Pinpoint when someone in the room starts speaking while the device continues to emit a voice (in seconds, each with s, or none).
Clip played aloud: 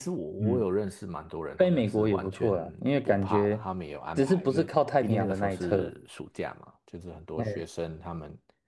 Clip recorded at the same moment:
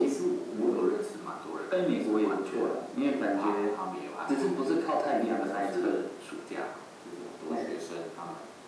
none